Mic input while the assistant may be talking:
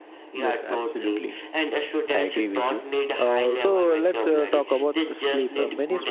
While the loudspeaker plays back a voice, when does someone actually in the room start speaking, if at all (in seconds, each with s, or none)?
0.3 s